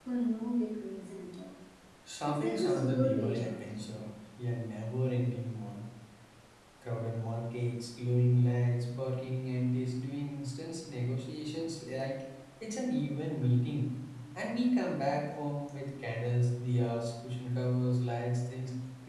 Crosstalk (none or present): present